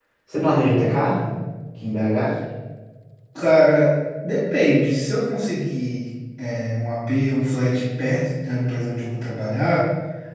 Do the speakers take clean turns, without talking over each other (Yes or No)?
Yes